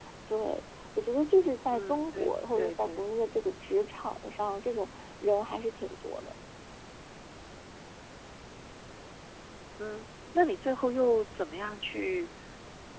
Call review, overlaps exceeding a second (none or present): present